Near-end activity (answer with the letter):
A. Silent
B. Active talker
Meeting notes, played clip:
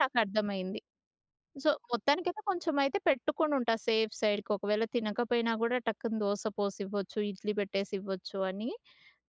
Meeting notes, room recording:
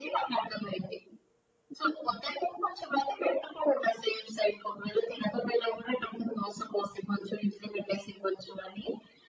A